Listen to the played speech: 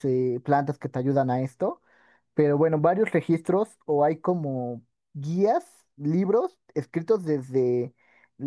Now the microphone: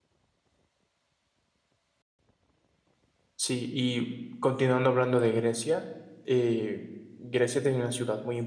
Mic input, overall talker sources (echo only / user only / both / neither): user only